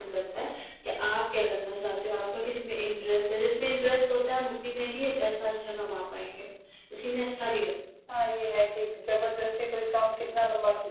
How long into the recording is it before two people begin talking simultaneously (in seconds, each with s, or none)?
none